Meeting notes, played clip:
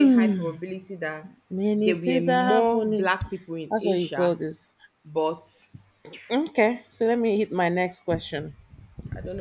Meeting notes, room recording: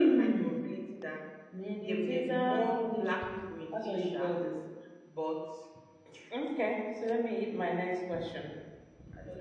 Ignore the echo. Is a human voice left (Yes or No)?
No